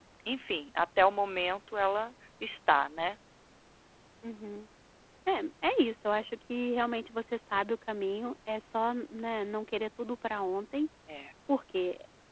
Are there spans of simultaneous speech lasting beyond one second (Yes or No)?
No